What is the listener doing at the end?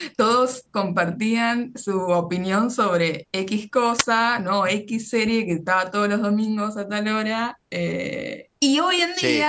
listening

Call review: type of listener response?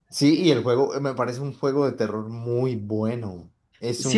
taking over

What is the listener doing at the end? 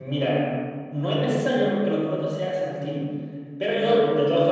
listening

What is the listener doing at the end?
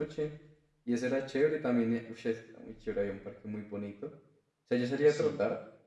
listening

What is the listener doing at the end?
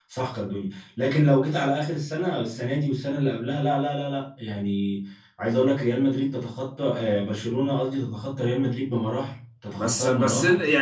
taking over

